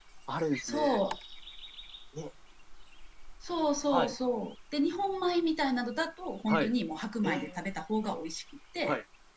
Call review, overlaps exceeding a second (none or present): none